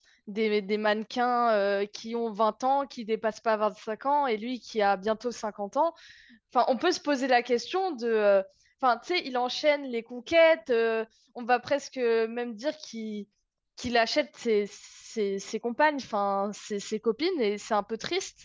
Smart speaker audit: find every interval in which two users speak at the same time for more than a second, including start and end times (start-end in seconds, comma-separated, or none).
none